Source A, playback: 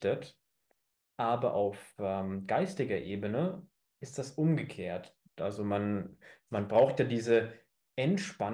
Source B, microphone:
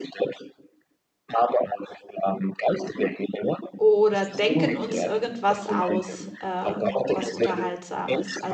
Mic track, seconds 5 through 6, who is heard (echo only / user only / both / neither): both